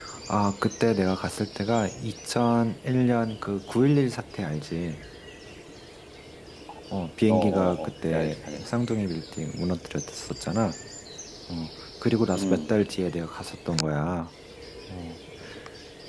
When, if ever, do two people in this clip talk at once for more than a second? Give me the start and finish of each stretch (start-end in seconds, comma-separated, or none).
7.3-8.7